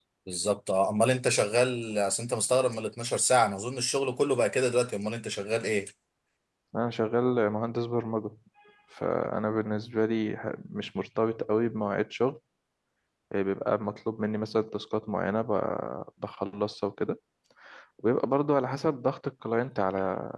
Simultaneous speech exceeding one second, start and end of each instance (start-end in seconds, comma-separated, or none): none